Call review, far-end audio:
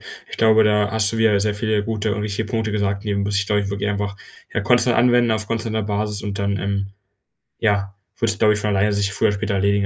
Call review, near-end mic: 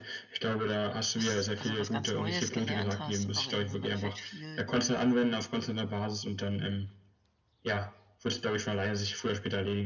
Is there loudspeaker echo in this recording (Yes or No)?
Yes